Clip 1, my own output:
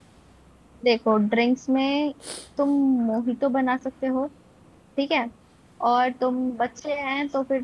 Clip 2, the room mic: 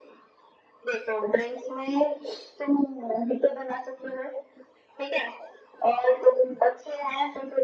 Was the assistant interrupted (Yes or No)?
No